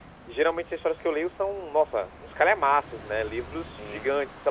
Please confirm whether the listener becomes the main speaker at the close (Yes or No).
No